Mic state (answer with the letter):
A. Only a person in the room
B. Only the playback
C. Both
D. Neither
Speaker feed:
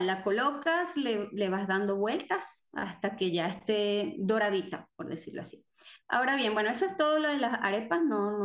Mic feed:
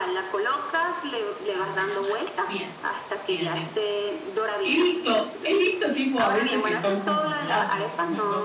C